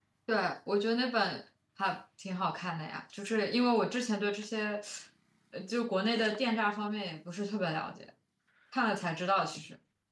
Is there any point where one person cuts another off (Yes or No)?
No